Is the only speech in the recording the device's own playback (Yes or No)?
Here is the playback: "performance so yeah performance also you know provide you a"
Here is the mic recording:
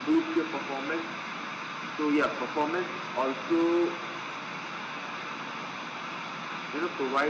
Yes